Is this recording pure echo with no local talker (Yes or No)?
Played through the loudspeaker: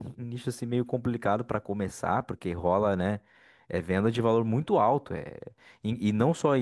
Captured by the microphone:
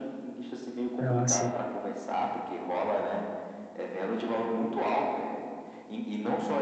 No